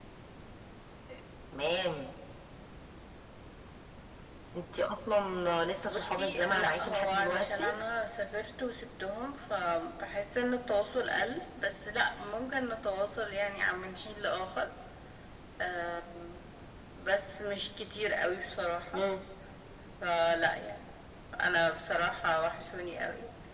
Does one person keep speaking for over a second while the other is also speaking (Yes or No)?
Yes